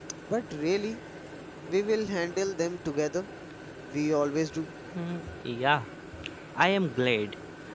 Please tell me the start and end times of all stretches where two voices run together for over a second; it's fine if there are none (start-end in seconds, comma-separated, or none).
none